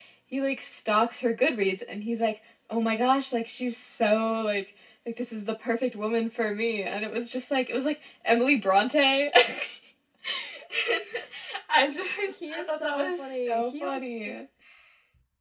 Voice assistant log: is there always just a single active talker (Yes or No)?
No